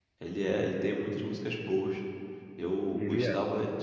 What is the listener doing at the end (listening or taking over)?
listening